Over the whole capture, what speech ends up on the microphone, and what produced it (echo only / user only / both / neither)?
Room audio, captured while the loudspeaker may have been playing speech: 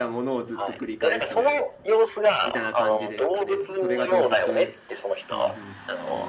both